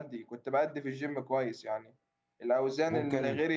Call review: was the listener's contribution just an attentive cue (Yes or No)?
Yes